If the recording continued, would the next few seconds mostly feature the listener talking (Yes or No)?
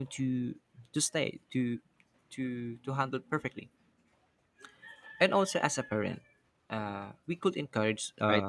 No